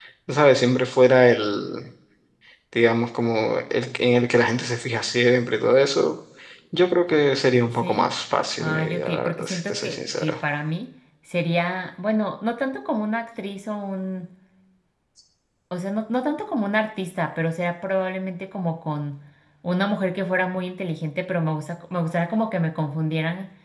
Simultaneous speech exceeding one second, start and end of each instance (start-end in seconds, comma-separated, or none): 8.6-10.4